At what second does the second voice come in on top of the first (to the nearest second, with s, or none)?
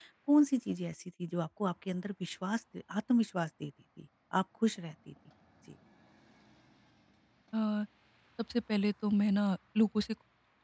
none